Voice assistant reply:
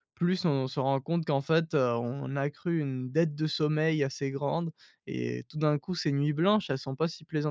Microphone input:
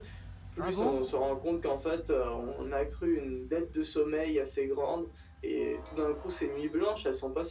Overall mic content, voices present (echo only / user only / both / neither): both